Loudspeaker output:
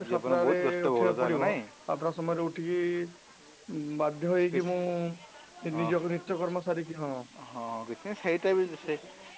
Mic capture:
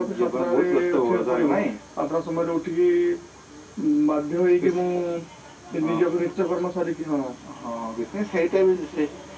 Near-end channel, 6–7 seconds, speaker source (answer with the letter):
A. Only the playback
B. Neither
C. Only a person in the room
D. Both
A